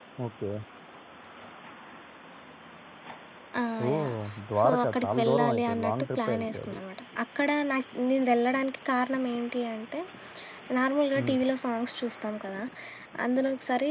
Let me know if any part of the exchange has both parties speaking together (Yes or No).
Yes